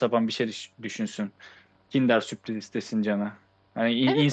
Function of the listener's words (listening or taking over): taking over